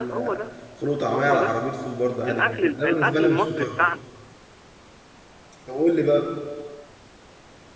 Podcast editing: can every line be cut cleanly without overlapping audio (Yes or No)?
No